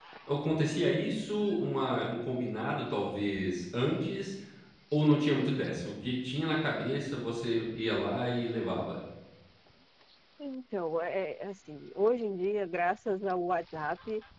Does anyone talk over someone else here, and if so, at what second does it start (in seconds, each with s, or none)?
none